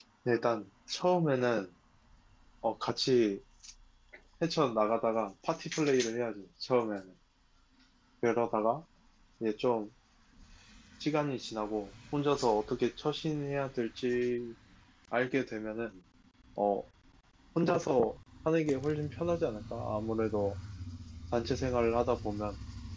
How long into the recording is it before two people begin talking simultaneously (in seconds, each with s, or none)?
none